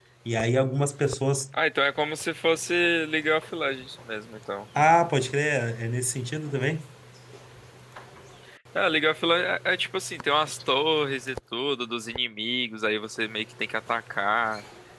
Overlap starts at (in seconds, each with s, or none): none